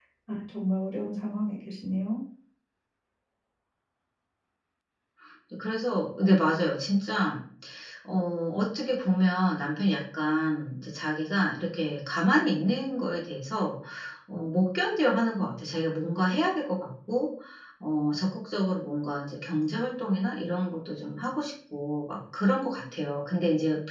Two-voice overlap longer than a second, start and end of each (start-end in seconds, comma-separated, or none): none